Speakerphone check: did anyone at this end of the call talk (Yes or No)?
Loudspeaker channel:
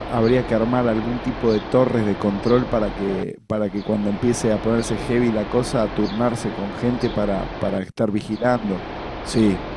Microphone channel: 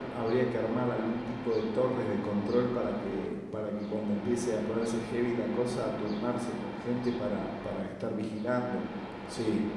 No